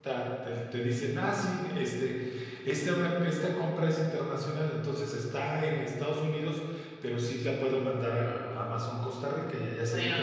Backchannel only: No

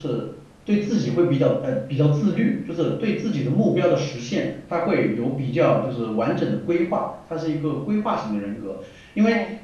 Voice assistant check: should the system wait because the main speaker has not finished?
No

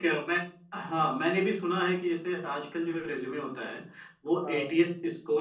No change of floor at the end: Yes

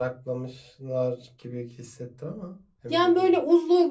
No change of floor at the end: No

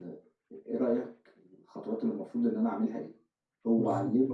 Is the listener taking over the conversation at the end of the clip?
No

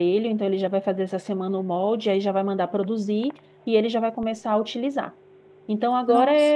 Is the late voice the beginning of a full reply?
No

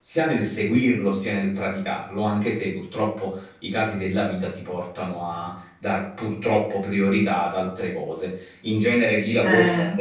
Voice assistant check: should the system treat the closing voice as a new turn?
No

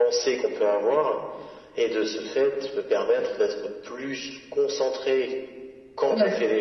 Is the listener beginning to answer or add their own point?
Yes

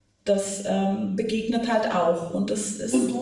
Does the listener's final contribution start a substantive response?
Yes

